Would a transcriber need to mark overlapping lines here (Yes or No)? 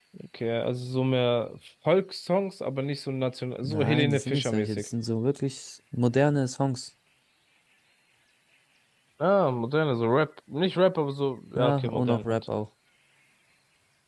Yes